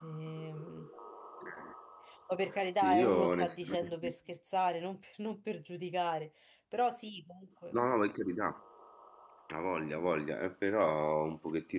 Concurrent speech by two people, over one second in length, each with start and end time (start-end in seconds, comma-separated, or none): 2.8-4.1